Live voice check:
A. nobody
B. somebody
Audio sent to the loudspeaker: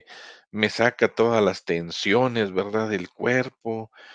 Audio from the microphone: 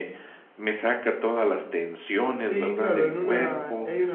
B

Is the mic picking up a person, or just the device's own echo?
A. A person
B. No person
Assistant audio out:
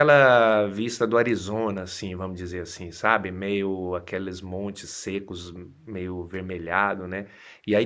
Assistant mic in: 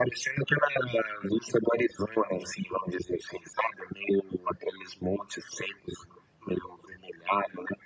B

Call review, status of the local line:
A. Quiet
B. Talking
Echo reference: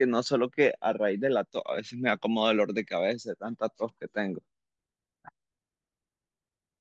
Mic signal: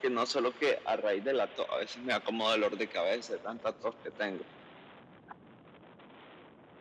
A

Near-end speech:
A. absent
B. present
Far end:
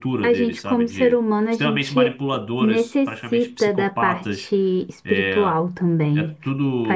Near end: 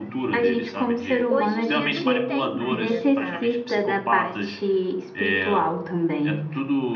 B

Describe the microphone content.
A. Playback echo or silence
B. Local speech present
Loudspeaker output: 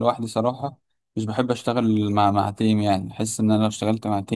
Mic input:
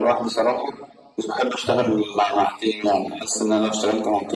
B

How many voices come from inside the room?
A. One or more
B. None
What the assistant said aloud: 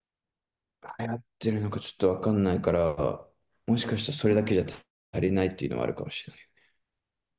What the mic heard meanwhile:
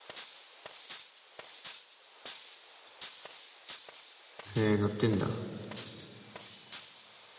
A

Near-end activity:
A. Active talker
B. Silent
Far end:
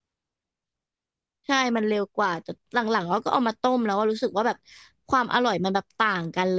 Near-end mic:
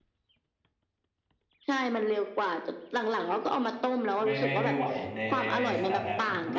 A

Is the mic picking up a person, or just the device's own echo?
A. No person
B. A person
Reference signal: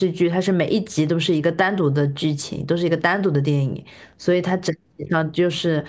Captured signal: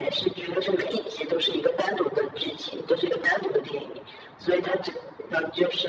A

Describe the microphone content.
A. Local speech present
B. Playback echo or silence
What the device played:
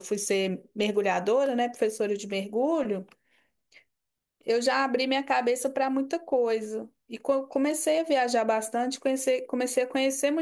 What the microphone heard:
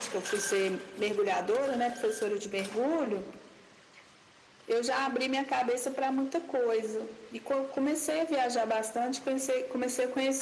B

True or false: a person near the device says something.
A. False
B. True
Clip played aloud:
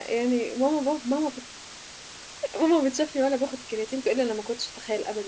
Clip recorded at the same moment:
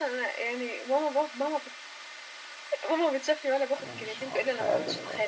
B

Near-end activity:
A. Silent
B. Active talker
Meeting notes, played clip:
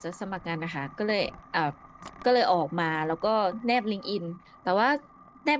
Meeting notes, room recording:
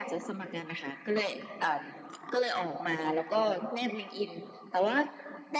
A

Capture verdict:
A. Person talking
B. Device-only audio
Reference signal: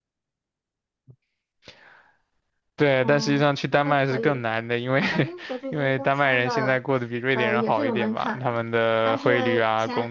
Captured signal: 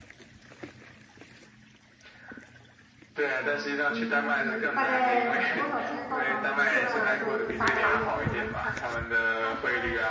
A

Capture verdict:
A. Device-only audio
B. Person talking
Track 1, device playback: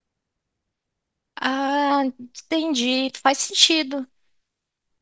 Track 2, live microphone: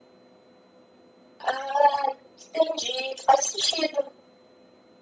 A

